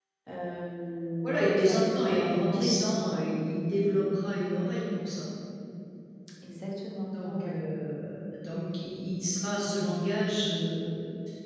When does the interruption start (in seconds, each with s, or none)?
1.2 s